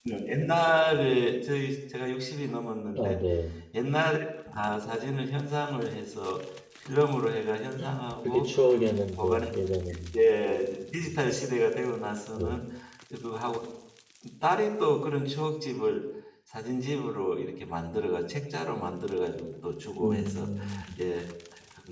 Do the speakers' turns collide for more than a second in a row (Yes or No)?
No